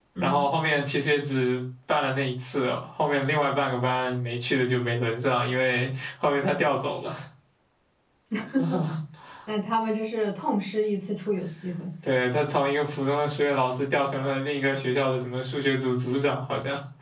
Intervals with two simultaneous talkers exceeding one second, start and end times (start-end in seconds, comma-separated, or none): none